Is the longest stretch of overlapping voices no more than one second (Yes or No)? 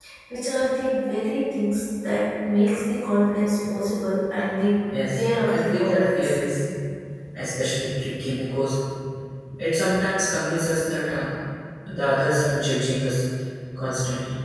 No